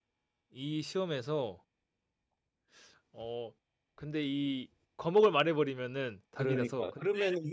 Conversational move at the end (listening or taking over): taking over